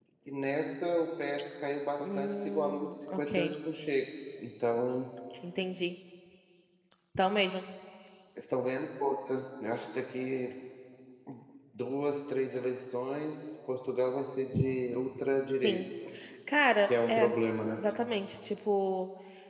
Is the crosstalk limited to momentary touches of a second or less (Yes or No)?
No